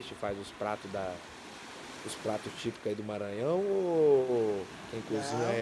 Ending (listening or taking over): taking over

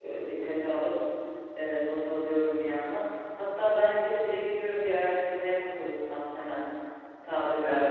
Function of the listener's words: taking over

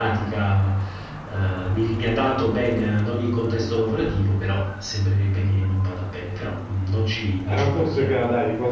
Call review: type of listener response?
taking over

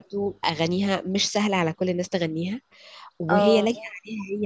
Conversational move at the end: listening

